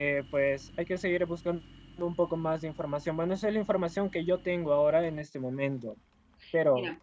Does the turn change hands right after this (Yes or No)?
Yes